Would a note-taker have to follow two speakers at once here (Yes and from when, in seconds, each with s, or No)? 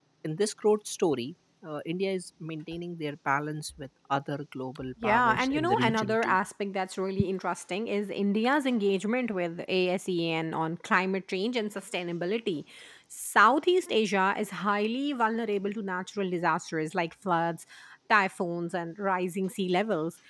Yes, from 5.0 s